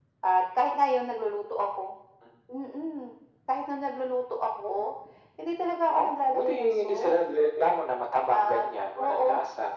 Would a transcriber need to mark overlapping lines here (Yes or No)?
Yes